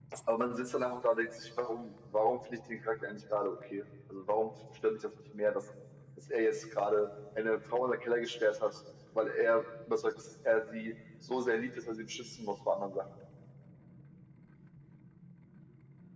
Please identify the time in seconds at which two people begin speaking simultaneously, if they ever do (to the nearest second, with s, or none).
none